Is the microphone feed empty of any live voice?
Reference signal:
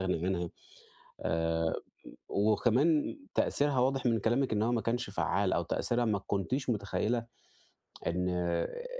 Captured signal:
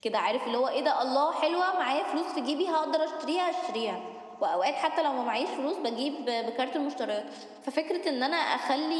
No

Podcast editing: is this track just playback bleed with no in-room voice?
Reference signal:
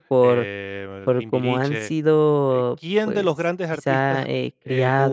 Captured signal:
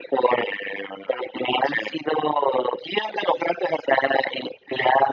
Yes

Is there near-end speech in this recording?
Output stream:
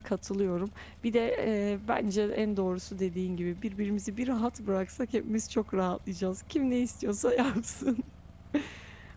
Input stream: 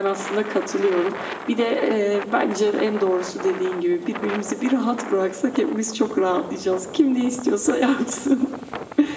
No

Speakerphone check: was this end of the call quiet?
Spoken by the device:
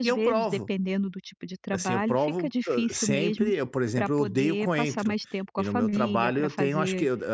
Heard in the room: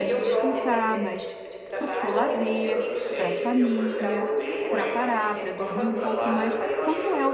No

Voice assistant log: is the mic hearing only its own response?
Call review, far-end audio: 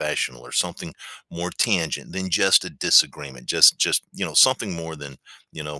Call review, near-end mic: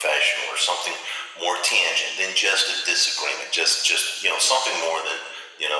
Yes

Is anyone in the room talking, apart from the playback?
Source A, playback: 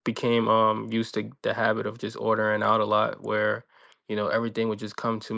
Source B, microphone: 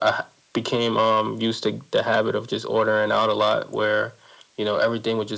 No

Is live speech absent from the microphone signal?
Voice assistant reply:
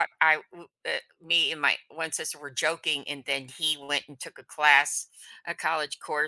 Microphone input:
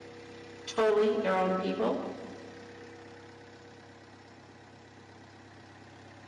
No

